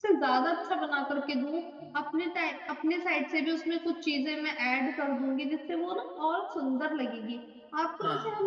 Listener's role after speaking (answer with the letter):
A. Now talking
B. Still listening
B